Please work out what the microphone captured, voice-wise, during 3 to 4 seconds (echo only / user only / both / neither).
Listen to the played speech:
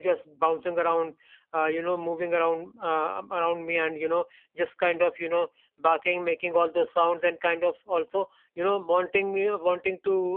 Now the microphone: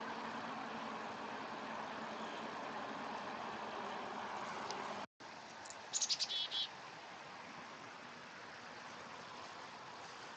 neither